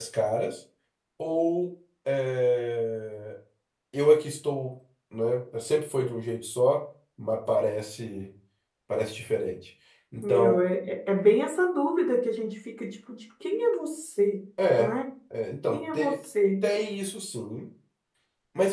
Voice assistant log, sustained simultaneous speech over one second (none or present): none